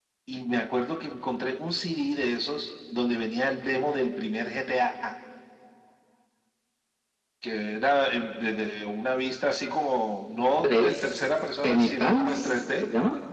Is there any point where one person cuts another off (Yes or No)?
Yes